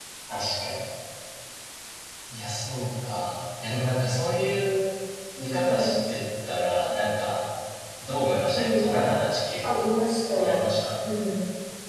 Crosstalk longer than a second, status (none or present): none